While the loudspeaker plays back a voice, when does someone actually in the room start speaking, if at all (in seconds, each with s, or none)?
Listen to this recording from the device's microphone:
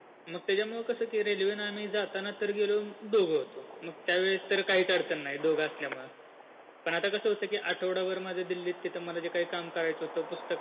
none